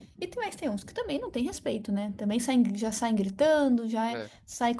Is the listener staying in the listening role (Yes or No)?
Yes